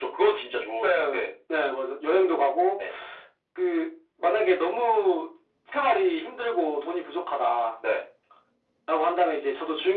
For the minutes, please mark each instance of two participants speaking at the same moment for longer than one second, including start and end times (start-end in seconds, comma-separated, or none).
none